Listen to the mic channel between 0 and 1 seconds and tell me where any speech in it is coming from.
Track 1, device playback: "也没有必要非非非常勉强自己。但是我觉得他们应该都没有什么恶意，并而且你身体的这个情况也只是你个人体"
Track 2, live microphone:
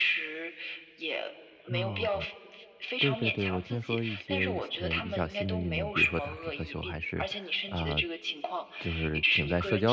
echo only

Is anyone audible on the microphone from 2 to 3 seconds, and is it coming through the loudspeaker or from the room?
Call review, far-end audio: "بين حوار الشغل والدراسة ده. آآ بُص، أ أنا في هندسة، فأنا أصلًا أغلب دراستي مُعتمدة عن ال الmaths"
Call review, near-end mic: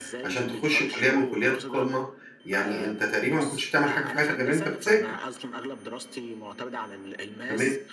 both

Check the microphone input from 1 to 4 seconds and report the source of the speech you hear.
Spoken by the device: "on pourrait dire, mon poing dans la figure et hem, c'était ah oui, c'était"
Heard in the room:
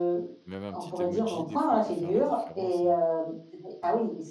both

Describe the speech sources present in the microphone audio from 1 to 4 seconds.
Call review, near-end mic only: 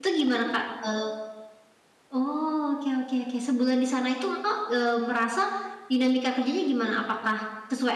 user only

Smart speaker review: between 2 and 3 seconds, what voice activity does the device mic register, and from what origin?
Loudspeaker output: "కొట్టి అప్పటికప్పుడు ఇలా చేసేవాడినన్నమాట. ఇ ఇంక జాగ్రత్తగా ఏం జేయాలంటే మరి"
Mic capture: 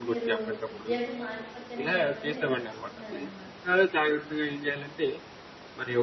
both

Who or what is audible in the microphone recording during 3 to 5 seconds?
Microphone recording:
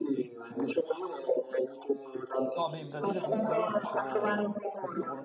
both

